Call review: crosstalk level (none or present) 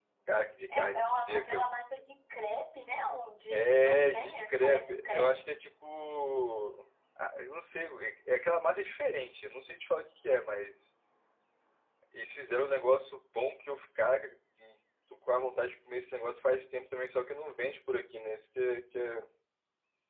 present